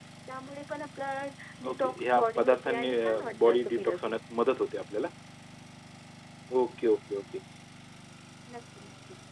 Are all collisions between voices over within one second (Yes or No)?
No